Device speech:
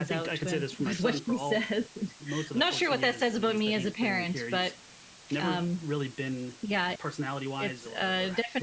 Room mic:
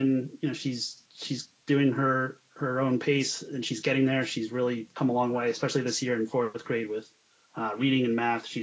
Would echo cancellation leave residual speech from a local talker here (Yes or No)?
Yes